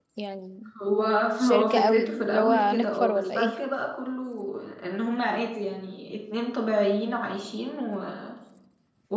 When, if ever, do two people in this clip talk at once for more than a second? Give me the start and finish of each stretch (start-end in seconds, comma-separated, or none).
1.4-3.5